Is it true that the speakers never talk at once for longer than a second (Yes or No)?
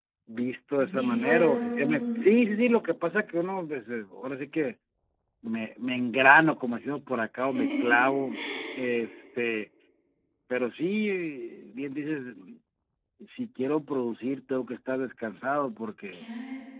No